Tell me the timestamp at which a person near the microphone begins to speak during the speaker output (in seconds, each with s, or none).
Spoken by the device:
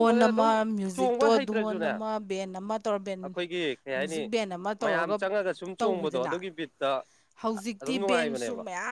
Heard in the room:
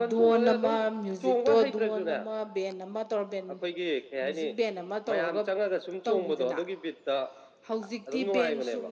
none